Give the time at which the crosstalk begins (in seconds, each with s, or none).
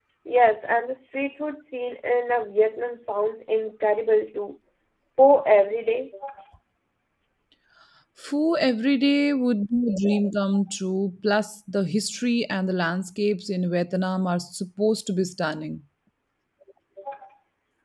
none